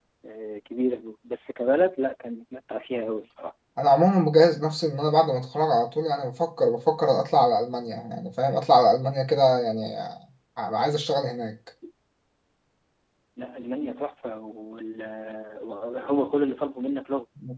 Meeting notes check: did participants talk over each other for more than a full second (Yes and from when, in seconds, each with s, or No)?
No